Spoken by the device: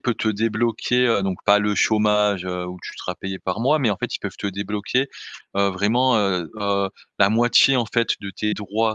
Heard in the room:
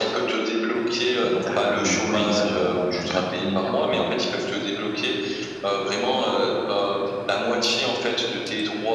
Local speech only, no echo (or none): D'accord donc oui ça impact aussi tout temps en temps.